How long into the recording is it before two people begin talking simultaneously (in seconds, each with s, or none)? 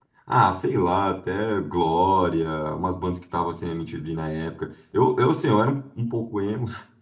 none